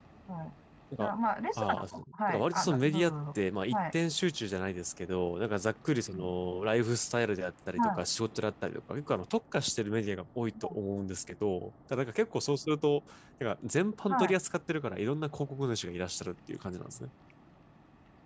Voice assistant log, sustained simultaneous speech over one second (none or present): present